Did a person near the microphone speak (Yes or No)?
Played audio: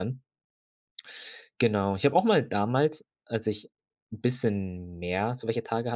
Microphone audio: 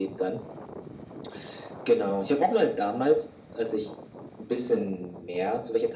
No